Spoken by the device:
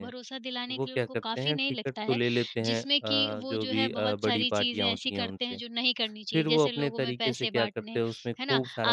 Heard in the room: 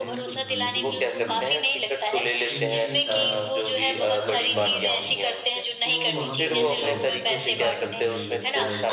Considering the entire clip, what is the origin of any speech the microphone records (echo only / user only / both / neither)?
both